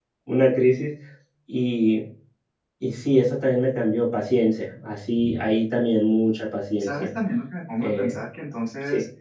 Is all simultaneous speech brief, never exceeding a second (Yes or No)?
Yes